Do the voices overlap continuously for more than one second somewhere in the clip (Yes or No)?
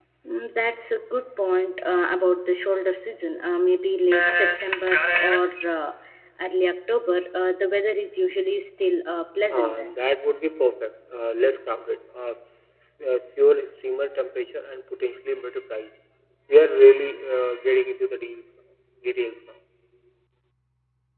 No